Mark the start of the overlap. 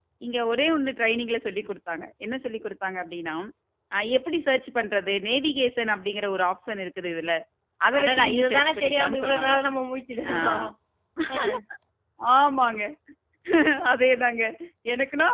8.0 s

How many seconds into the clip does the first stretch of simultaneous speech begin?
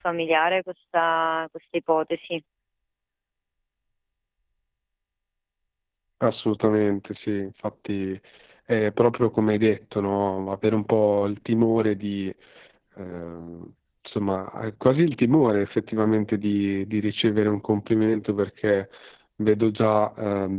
none

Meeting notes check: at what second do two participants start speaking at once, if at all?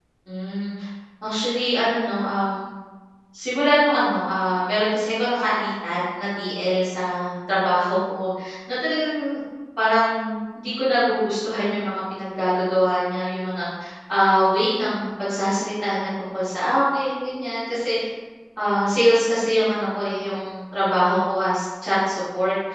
none

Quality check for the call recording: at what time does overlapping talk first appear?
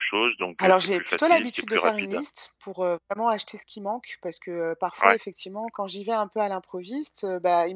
0.6 s

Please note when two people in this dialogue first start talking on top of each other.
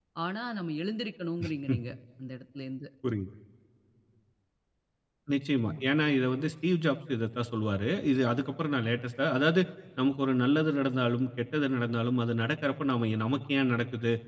none

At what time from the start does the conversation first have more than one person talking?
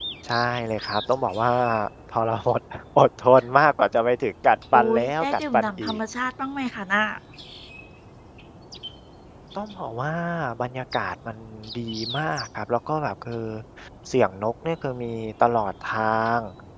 4.7 s

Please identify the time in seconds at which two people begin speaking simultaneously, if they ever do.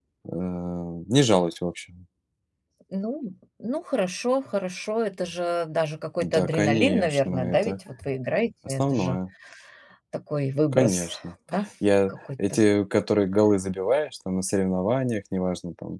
6.2 s

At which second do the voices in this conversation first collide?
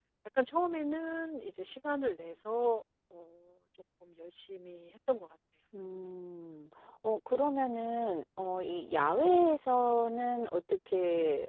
none

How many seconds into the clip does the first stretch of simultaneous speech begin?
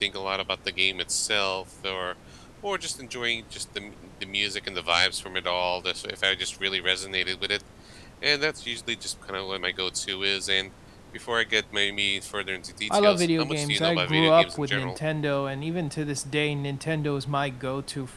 12.9 s

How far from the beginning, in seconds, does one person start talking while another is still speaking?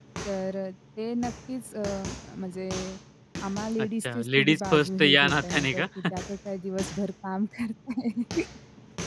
3.8 s

